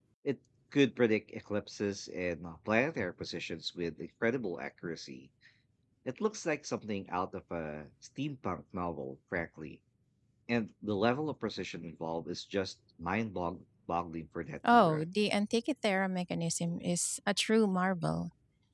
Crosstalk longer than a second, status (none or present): none